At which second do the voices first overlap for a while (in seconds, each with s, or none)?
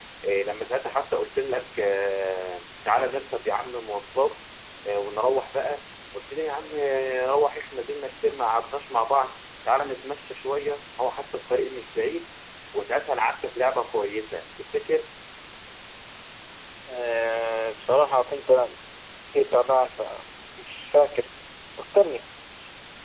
none